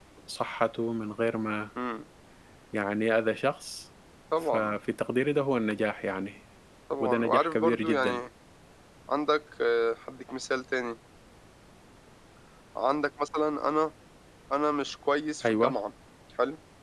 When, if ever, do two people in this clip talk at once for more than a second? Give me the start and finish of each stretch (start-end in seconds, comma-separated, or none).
7.0-8.2